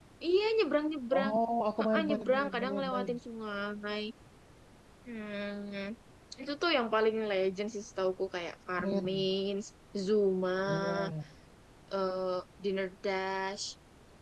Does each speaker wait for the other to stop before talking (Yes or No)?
No